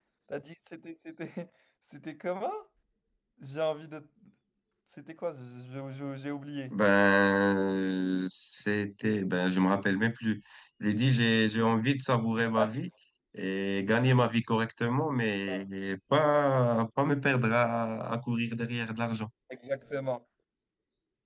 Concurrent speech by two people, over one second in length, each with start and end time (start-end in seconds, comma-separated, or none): none